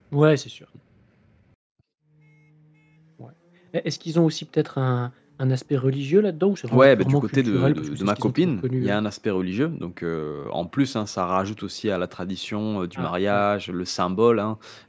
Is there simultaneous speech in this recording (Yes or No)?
Yes